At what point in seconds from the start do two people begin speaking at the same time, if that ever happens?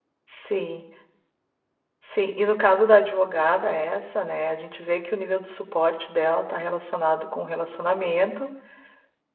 none

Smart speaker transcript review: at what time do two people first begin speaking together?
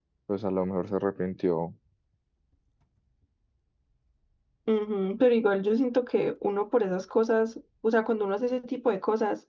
none

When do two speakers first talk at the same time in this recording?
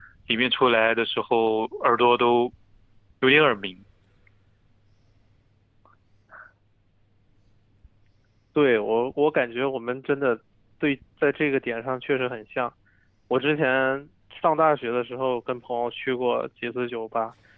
none

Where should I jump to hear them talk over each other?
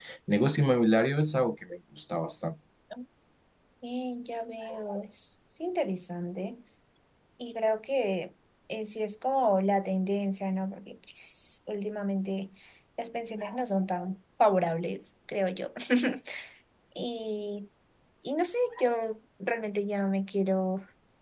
none

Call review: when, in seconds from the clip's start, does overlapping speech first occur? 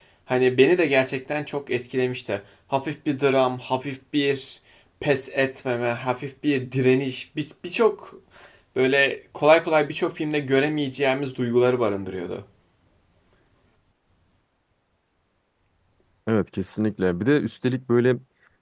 none

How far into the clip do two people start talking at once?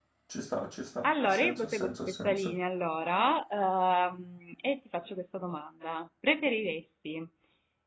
1.0 s

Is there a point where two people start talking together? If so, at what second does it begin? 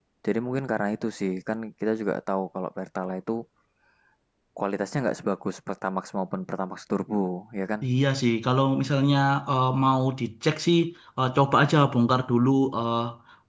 none

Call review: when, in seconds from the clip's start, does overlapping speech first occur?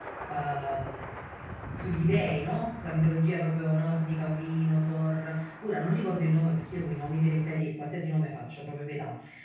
none

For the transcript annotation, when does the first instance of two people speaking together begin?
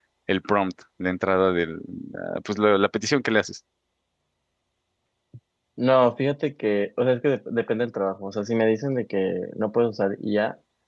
none

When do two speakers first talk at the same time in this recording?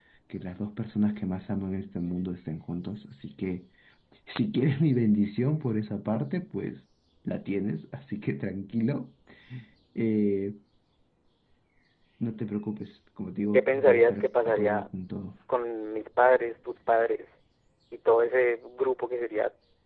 13.5 s

